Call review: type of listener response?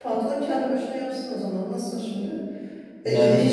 listening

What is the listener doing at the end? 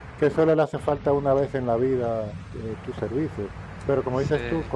listening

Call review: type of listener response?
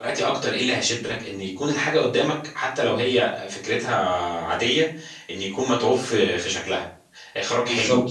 listening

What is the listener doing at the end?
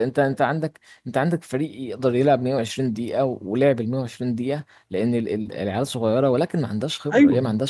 listening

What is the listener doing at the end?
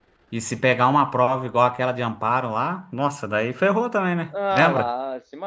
taking over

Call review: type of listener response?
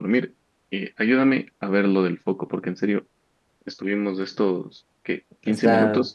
listening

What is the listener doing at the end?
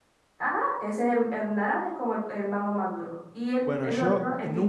taking over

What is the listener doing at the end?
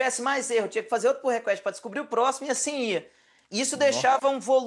listening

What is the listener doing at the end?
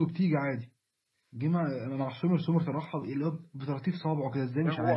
taking over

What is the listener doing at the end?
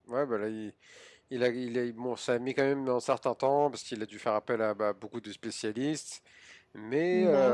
listening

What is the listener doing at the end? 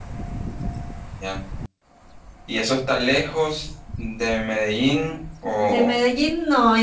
taking over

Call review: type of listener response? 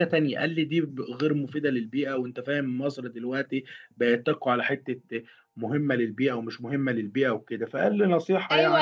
taking over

